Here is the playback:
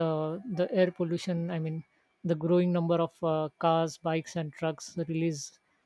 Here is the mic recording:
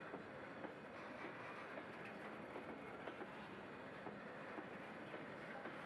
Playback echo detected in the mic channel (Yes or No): No